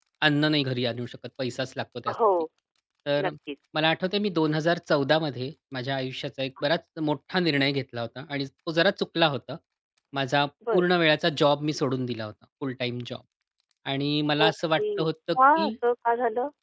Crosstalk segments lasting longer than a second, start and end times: 14.4-15.7

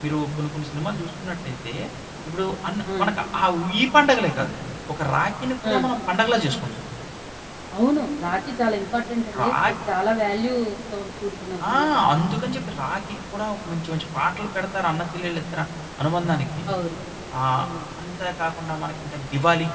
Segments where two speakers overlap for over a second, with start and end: none

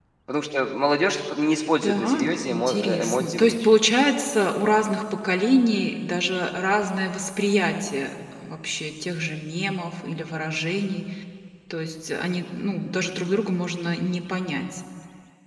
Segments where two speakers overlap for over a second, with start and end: 1.8-3.7

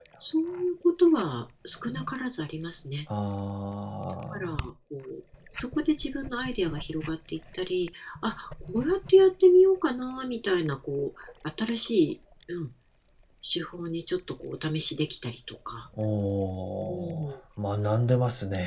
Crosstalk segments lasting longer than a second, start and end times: none

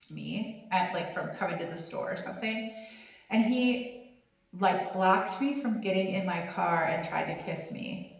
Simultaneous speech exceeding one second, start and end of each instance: none

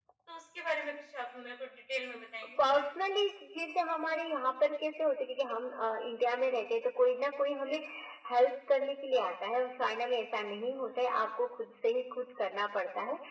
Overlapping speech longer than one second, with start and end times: none

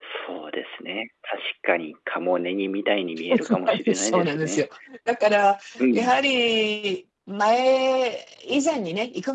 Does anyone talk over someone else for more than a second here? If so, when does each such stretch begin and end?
3.3-4.7

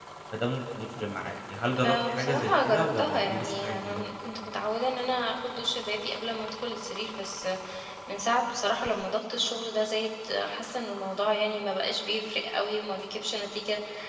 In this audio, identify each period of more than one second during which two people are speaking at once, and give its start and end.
1.8-4.0

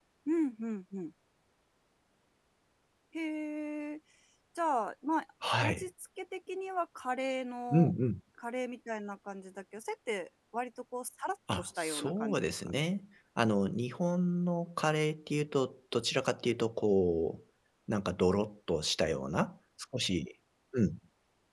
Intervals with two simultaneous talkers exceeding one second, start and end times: 11.6-12.8

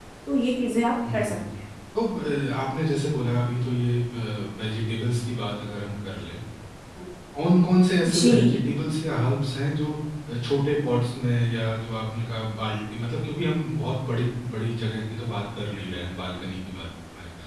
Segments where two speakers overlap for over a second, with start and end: none

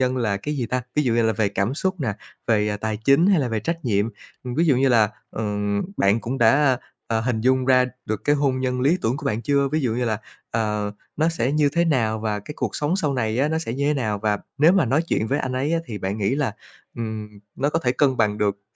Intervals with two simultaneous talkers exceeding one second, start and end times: none

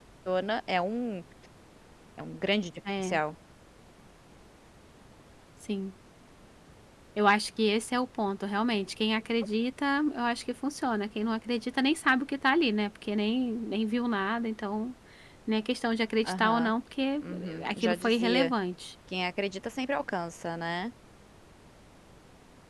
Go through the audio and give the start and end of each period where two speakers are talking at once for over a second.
17.2-18.5

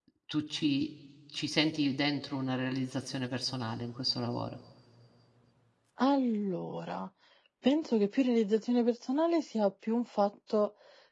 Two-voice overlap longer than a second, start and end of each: none

